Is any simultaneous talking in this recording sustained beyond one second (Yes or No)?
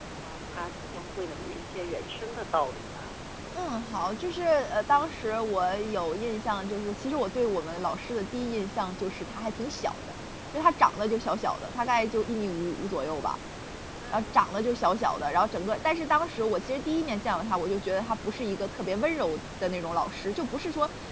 No